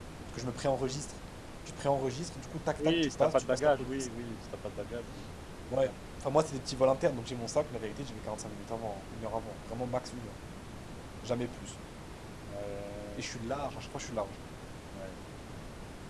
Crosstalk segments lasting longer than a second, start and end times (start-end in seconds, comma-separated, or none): 2.8-4.1